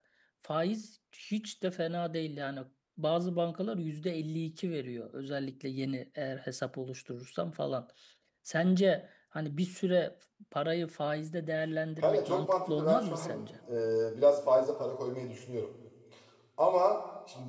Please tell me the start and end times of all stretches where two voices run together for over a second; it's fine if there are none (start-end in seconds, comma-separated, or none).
12.0-13.4